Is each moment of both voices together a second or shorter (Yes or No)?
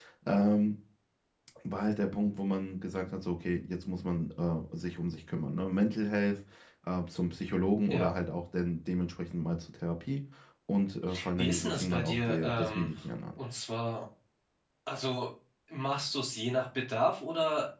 No